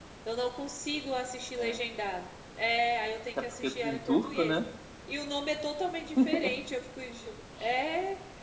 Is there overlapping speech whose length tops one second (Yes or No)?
Yes